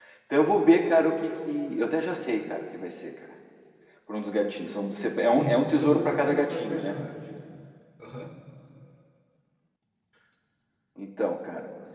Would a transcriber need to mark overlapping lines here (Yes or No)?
Yes